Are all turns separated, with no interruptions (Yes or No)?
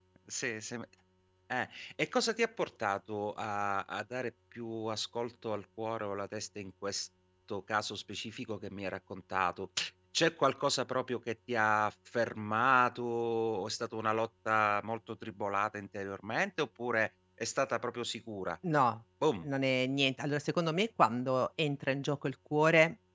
Yes